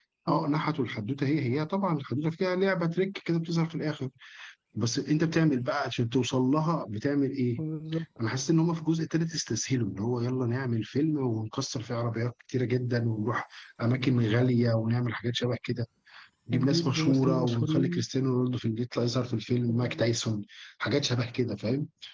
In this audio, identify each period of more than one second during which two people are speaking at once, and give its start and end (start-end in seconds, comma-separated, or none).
16.5-18.0